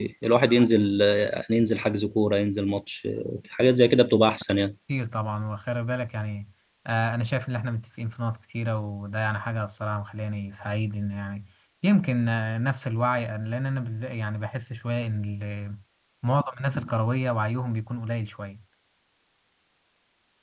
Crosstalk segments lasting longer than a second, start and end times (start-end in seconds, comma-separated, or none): none